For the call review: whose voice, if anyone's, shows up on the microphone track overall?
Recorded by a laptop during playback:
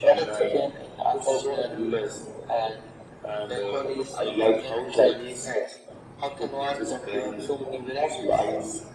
echo only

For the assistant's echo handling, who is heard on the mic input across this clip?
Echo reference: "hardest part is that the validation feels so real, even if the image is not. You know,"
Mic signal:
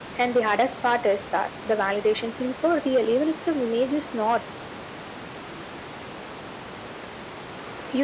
echo only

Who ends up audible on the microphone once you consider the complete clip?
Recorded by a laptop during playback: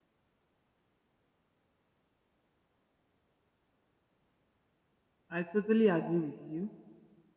user only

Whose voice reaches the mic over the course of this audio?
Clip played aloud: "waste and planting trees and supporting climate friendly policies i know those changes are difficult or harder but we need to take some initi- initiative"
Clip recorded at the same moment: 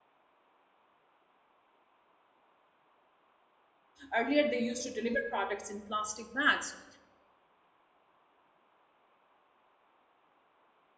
user only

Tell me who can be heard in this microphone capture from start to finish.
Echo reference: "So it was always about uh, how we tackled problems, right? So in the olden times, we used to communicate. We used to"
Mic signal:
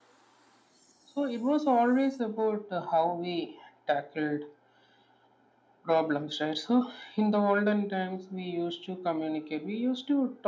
echo only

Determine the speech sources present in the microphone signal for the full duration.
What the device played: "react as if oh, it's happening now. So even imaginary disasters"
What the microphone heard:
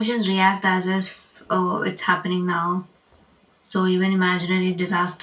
echo only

